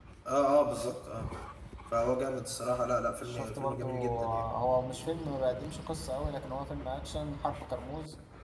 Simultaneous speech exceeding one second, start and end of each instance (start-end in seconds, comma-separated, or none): 3.2-4.4